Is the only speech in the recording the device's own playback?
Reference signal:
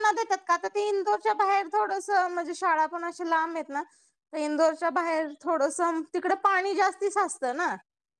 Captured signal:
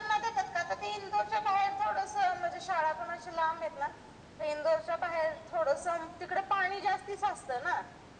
Yes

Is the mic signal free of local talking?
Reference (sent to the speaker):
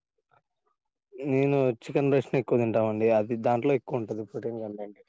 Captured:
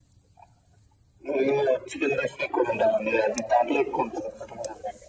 Yes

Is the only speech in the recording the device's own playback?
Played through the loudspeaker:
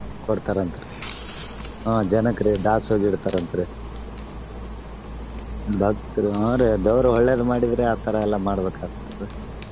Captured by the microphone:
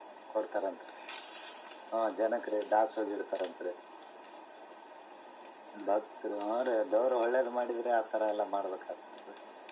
Yes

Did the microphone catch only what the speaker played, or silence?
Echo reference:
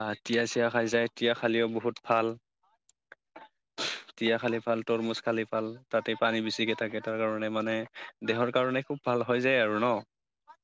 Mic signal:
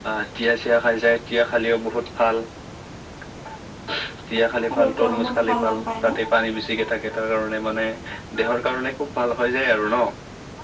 No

